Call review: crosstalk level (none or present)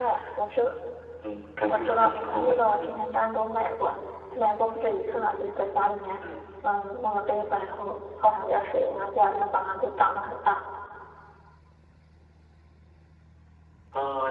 present